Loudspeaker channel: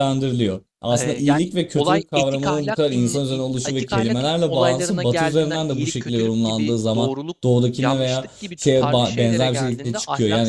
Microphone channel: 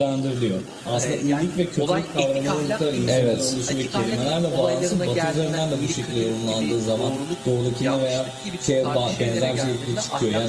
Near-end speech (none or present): present